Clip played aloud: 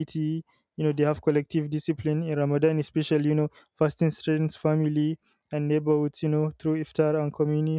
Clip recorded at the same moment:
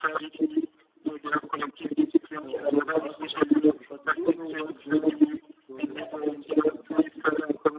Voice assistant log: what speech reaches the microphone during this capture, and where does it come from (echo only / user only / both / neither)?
both